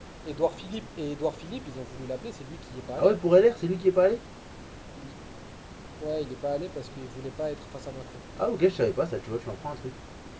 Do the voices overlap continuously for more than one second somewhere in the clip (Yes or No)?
No